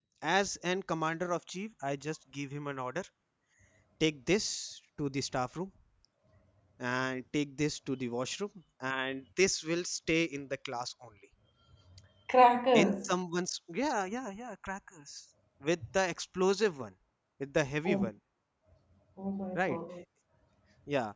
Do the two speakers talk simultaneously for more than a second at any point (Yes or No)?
No